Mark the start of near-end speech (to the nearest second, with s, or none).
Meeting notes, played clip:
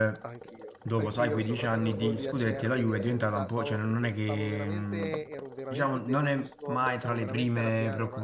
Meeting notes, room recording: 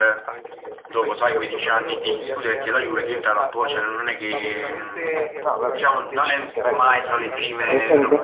5 s